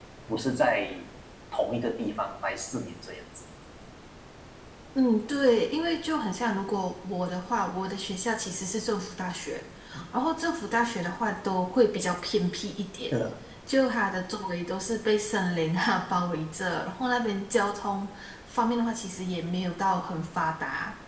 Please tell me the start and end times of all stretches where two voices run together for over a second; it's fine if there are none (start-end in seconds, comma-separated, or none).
none